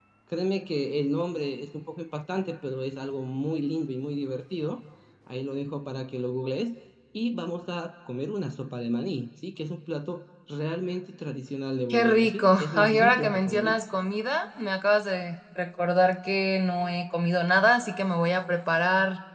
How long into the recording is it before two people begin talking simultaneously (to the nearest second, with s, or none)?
12 s